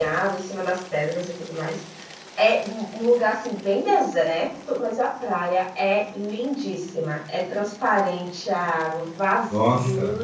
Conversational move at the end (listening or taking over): listening